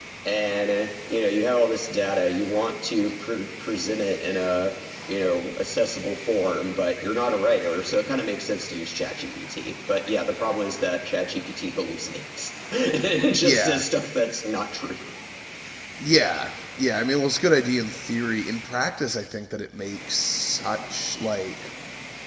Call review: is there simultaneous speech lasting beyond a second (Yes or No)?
No